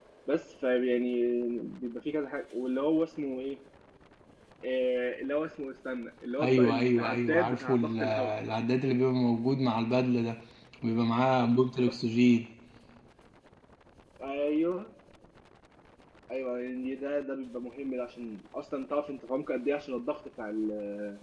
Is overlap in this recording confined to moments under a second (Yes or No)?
No